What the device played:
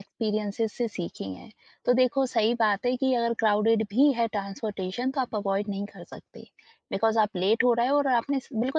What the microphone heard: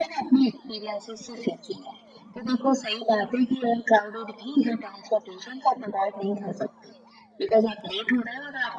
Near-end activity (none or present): none